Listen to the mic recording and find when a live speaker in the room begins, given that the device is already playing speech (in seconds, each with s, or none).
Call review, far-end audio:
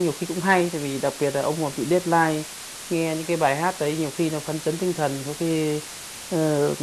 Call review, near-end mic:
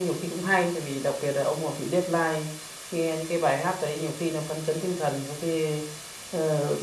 none